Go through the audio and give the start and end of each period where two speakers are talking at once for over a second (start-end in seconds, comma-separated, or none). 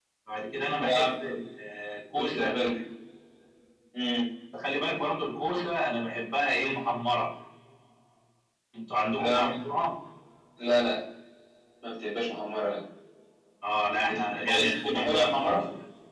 14.1-15.6